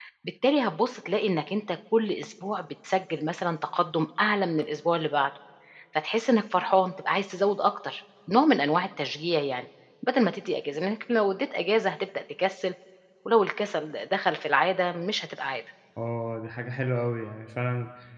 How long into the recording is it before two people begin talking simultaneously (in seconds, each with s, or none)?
none